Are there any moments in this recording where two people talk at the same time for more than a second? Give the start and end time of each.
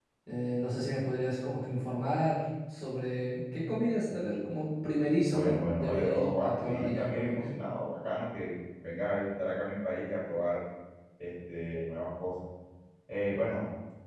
5.2-7.5

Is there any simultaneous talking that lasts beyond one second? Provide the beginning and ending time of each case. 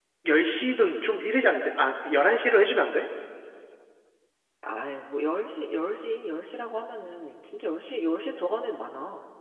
none

